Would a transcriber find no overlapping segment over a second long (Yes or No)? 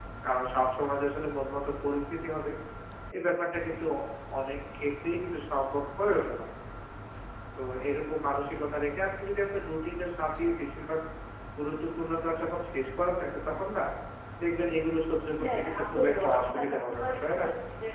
No